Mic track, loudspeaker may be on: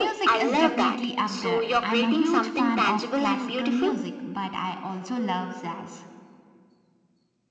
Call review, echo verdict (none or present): present